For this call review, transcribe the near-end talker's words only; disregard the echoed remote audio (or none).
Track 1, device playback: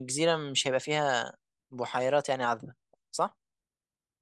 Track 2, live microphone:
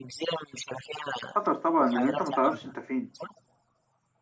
خطر طبعا لأن أنت ما تعرفش أنت فين